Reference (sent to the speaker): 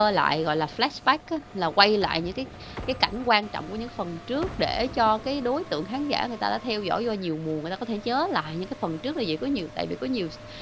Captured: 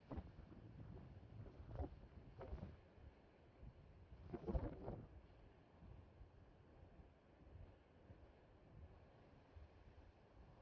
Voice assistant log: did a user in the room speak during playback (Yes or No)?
No